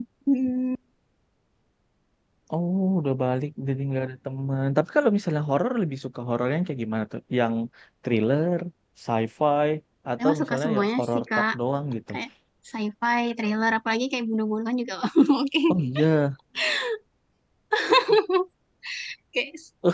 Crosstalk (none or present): present